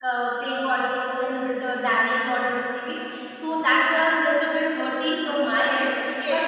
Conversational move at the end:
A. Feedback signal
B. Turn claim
B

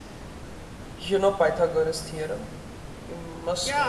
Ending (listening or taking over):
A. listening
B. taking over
B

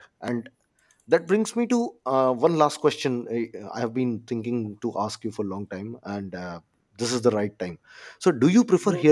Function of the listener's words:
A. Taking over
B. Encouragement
B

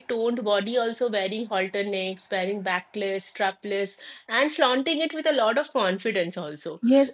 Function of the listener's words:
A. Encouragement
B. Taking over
B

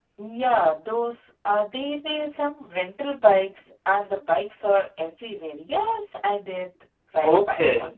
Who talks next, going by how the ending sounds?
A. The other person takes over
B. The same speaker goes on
A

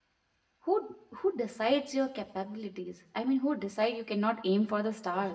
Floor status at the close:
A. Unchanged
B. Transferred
B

